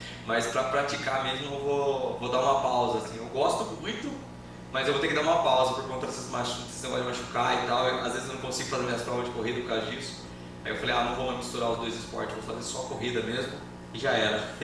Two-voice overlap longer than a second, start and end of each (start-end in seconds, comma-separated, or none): none